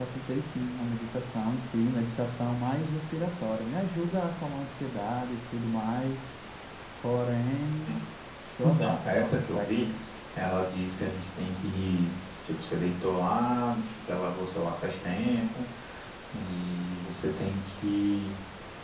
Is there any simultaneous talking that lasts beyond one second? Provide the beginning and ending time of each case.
8.6-9.9

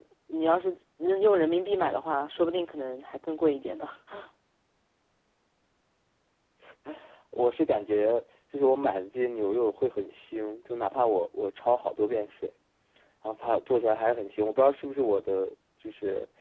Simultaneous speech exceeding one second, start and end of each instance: none

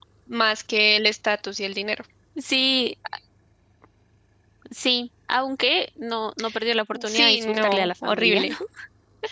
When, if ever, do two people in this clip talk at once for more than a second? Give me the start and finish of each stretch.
7.1-8.5

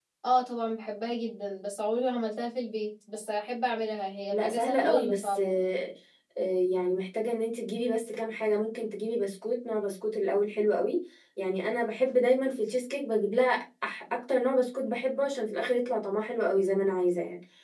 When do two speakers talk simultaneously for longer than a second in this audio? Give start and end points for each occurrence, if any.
4.3-5.5

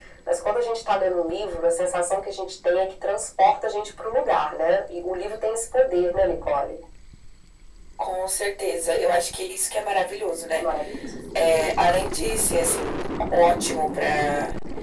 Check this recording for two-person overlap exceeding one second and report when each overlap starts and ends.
none

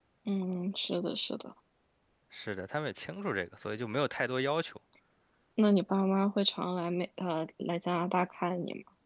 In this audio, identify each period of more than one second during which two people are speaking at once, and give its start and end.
none

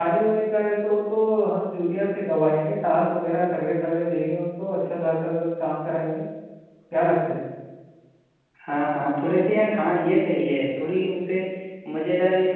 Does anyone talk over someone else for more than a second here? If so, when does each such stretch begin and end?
none

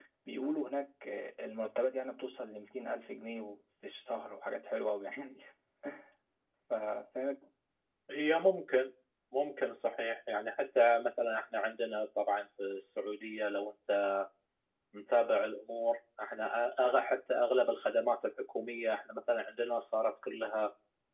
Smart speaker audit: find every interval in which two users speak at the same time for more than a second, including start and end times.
none

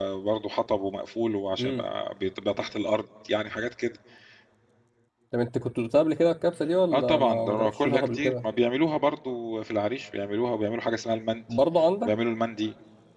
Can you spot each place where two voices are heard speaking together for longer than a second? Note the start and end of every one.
6.9-8.4

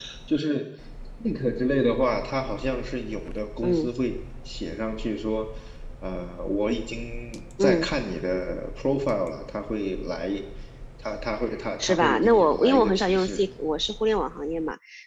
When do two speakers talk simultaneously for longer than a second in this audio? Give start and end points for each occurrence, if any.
11.8-13.4

